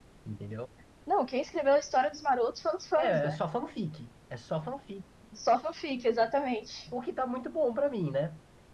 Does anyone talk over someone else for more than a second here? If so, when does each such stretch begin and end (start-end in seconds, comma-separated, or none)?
none